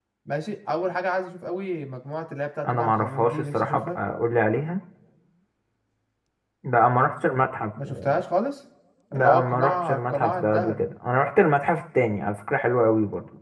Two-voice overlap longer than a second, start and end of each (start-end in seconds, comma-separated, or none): 2.7-4.0, 9.1-10.8